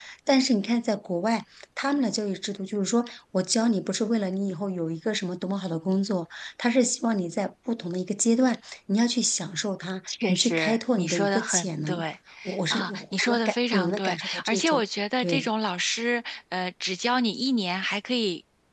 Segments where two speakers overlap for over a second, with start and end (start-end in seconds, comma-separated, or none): 10.3-12.0, 12.7-14.8